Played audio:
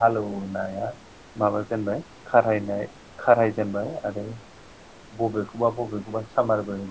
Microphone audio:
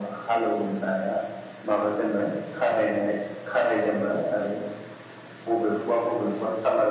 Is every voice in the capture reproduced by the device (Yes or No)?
Yes